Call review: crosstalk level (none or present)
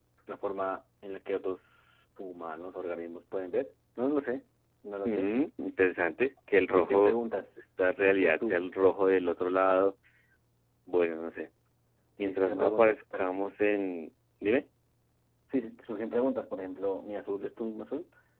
present